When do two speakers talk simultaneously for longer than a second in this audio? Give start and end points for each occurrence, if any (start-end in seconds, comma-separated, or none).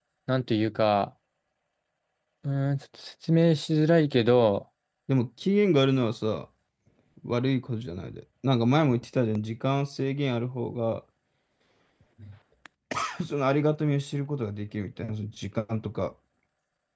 none